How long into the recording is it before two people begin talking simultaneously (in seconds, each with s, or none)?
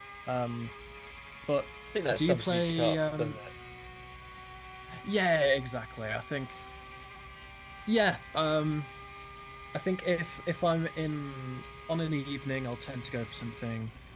2.1 s